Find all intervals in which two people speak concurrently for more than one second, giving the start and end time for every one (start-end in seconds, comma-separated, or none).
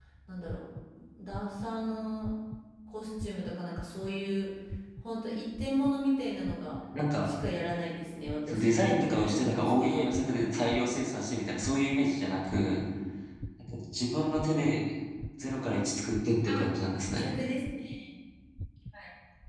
8.5-10.1